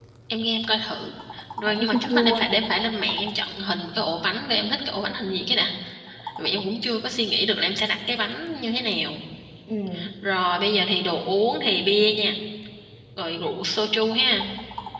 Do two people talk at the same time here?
Yes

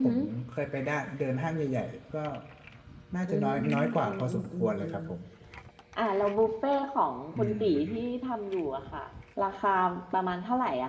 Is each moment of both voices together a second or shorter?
No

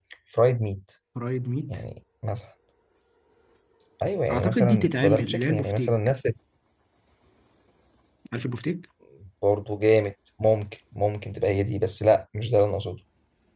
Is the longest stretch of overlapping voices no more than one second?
No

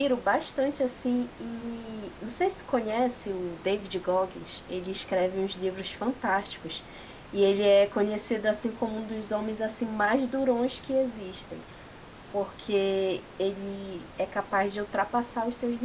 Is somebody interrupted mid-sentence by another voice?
No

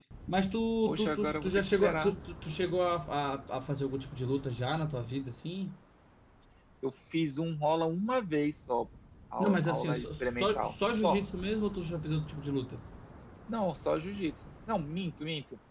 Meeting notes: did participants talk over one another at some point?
Yes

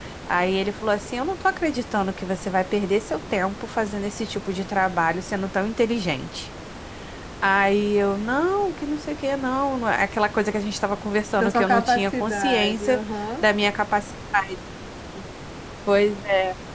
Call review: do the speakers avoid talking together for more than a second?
No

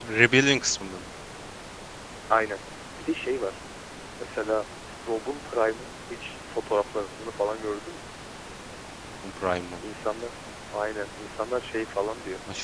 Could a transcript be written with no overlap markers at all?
Yes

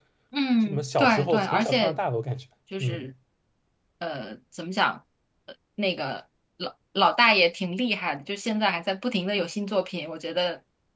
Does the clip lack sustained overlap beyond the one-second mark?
No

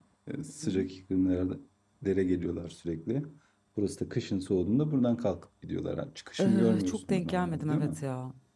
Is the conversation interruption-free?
No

